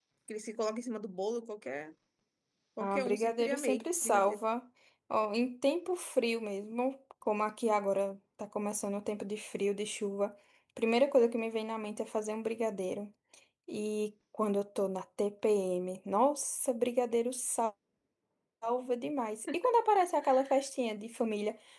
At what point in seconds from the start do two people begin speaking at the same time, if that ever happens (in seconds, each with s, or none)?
2.8 s